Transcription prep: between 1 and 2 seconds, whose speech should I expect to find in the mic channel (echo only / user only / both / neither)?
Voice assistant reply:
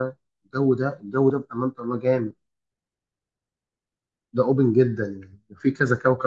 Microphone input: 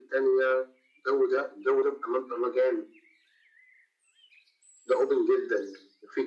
echo only